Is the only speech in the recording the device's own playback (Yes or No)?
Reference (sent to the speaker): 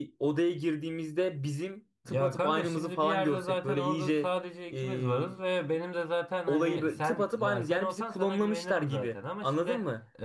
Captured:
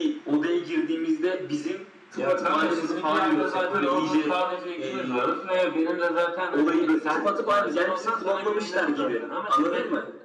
Yes